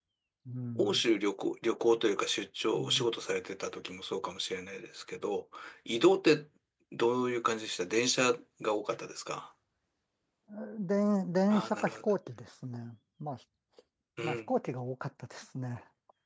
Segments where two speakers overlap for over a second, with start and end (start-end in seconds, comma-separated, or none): none